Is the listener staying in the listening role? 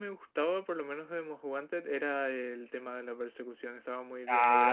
No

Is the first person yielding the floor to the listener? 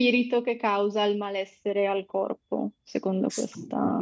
Yes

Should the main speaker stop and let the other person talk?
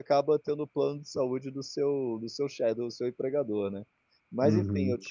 Yes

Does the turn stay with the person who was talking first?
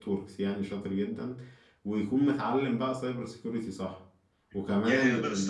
No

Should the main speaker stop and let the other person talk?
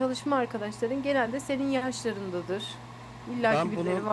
Yes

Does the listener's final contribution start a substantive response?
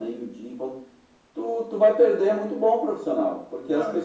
No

